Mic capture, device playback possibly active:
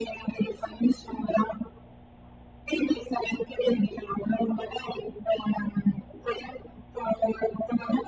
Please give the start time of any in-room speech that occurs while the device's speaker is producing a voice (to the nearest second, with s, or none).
none